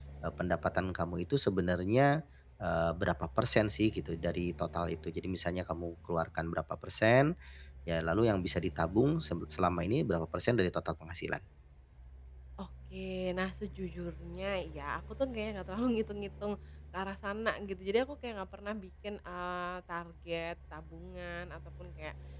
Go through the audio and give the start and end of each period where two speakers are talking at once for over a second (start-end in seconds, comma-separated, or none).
none